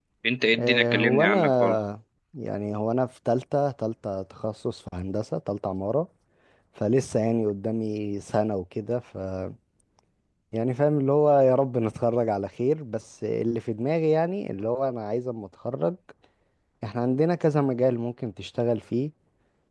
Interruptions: present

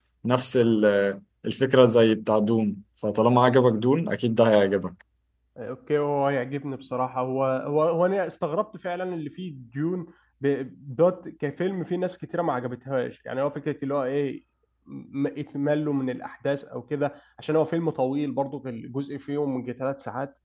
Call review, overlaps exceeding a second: none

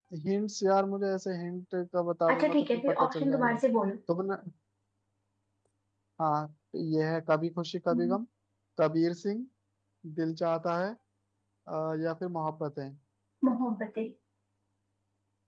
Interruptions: present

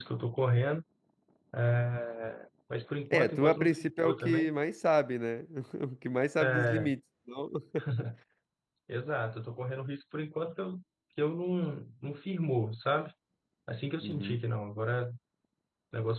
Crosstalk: present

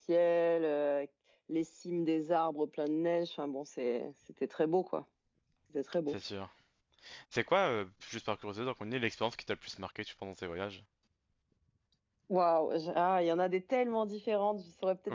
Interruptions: none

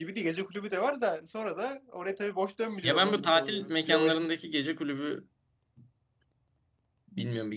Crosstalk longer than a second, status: present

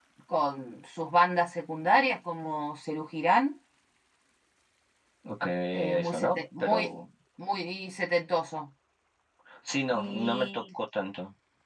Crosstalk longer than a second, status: present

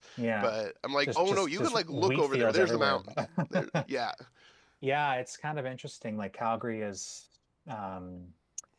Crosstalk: present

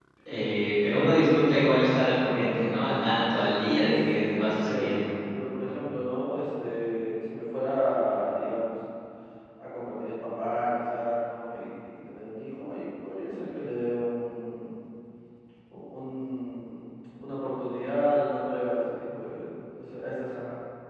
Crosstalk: present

